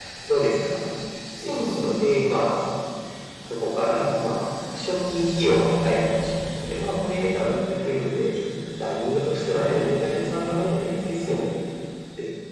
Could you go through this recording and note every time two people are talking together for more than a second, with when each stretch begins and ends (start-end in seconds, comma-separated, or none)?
none